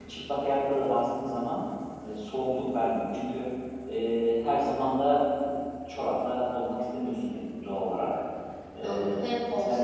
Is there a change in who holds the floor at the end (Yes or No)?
Yes